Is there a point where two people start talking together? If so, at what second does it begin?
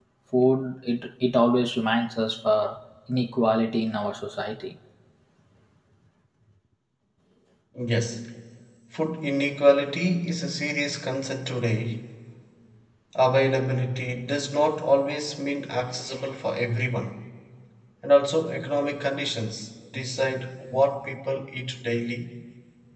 none

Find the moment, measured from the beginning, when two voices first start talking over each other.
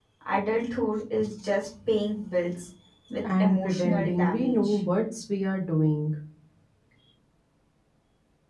3 s

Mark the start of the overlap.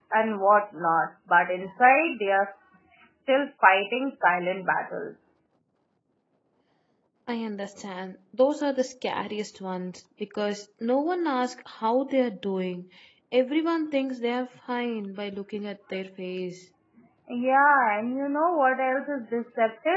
none

